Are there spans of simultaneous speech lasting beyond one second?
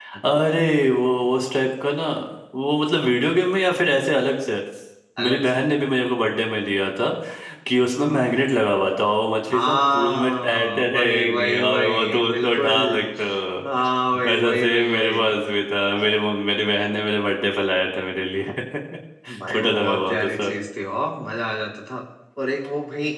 Yes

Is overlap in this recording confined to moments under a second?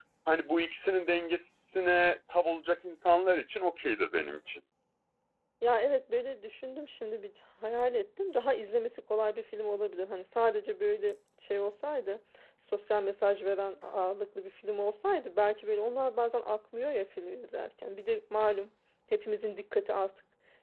Yes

